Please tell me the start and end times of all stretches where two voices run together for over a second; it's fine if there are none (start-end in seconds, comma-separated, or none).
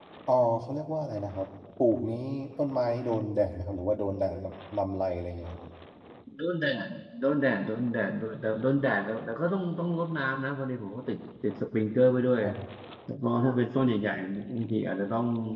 none